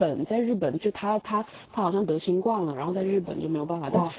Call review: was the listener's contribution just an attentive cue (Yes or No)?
Yes